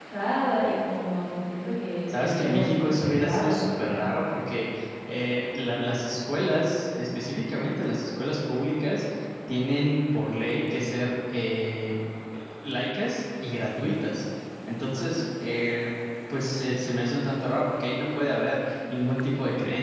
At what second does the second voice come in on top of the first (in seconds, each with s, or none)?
2.1 s